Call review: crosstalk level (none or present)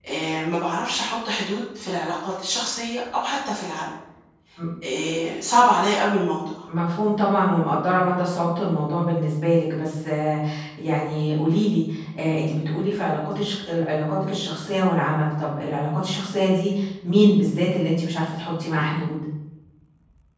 none